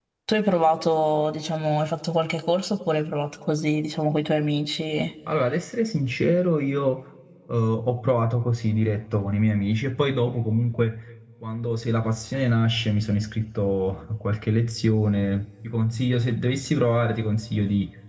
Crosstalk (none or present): none